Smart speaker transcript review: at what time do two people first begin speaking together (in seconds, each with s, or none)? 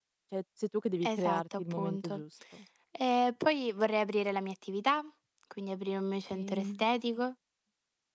1.0 s